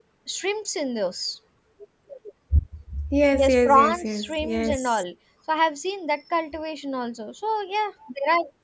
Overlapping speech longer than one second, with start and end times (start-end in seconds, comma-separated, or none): 3.3-5.0